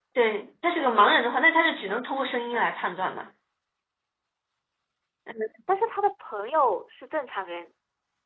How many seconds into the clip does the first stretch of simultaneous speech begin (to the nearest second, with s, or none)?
none